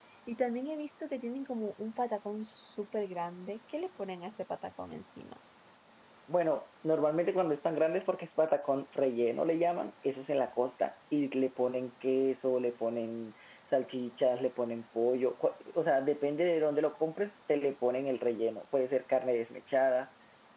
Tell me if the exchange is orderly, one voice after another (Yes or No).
Yes